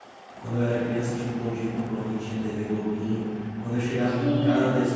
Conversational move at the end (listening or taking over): listening